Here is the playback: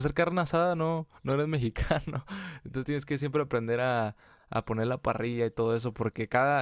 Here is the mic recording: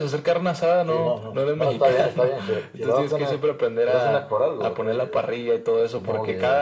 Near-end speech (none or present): present